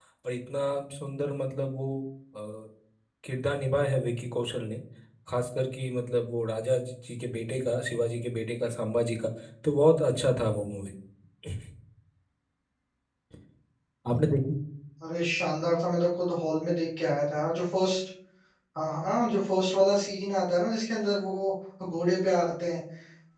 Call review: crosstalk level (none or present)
none